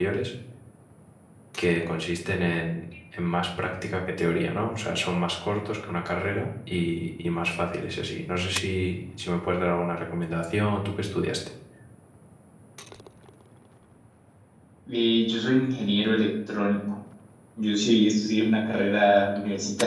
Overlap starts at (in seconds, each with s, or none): none